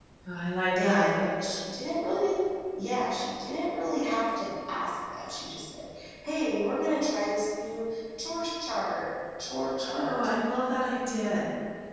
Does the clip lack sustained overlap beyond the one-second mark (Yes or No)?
Yes